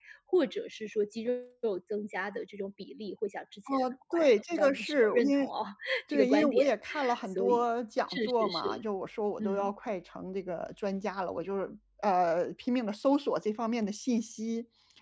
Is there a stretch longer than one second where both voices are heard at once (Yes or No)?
Yes